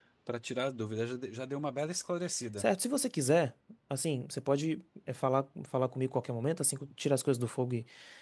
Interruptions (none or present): none